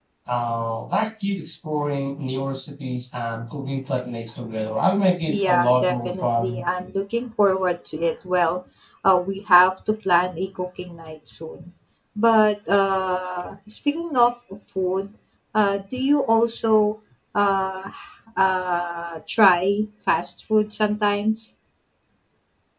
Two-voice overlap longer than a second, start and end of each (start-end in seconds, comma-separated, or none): 5.3-6.6